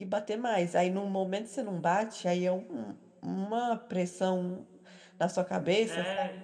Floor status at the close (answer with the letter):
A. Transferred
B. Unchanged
A